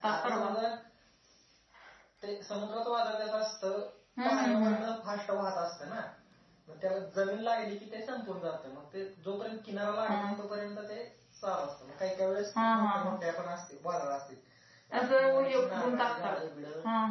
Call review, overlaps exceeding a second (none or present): present